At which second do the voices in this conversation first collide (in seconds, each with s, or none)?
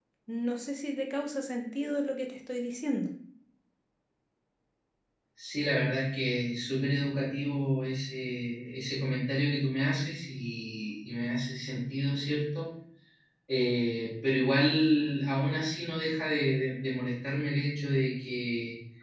none